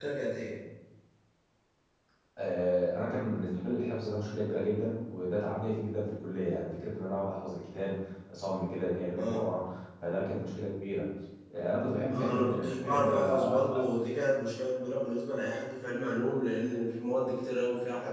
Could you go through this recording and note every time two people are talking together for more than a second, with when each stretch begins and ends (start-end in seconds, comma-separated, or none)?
12.1-13.8